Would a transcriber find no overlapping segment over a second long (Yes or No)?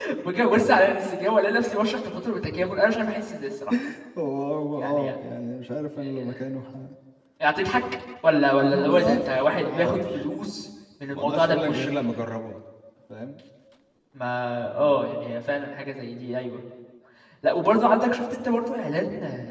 No